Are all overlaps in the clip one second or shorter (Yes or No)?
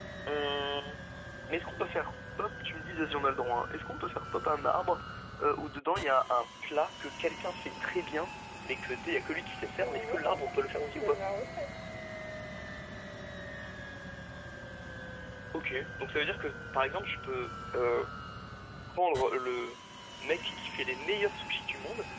No